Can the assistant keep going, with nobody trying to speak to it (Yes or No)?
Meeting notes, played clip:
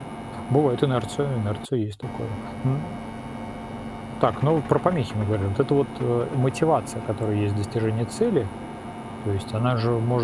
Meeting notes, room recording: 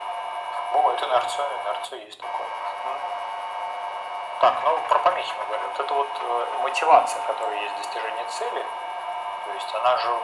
Yes